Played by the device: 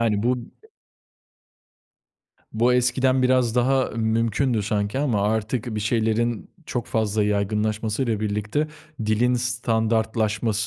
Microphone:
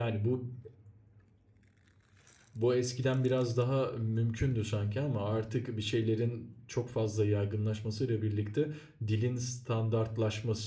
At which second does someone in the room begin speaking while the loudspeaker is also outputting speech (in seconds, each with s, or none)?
none